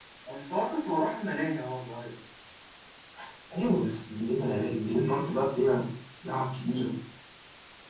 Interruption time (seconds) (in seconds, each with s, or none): none